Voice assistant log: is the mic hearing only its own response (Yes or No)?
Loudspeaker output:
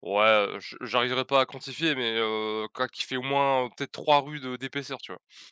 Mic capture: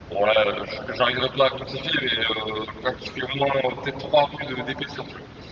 Yes